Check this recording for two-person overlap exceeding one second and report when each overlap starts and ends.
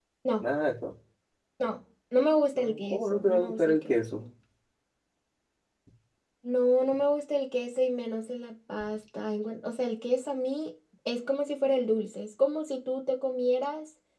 2.9-4.2

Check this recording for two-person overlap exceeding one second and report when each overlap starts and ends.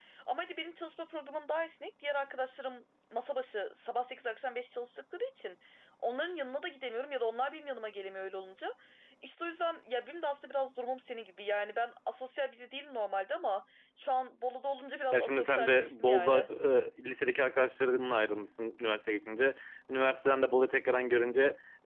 15.1-16.4

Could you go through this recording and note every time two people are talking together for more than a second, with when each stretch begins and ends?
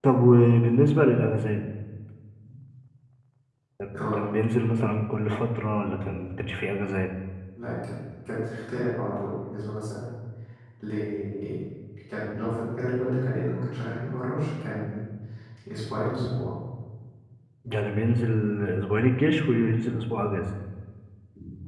none

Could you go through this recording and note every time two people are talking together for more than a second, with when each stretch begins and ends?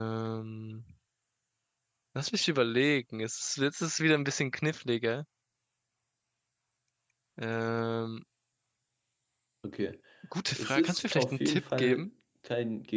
10.6-12.1

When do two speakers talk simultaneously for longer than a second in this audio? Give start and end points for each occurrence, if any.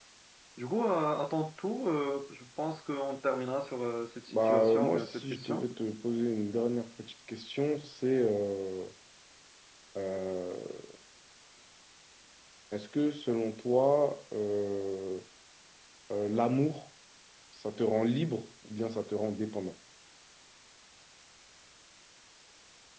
4.3-5.7

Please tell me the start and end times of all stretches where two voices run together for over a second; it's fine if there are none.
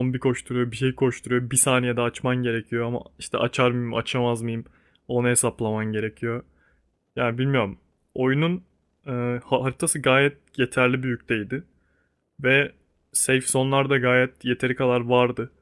none

